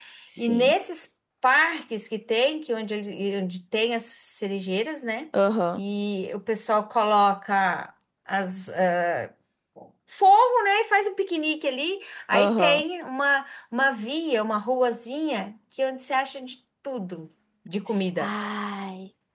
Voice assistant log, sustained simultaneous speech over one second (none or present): none